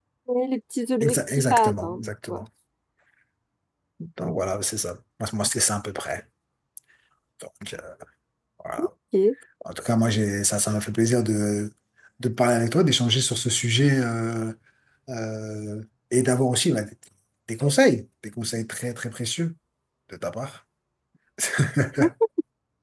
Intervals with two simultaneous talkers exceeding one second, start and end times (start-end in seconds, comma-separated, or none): 1.0-2.4